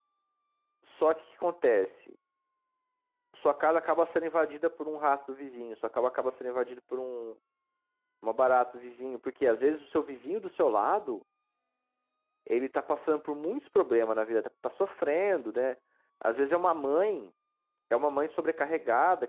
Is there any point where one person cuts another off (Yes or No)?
No